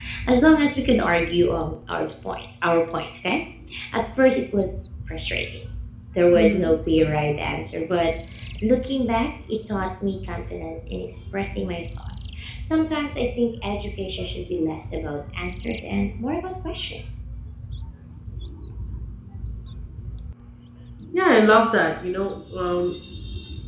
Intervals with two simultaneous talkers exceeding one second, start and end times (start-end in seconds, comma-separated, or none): none